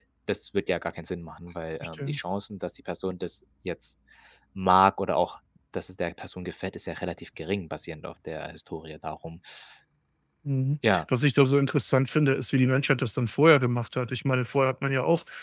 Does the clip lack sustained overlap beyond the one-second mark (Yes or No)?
Yes